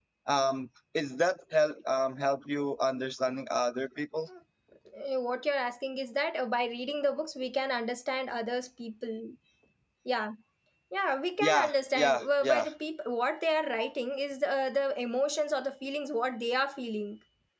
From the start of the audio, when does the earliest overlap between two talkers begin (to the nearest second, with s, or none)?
11 s